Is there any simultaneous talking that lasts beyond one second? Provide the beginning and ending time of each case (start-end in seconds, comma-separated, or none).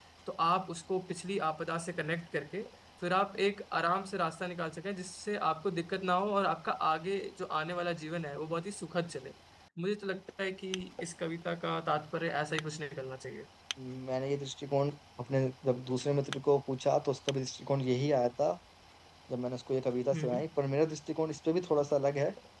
none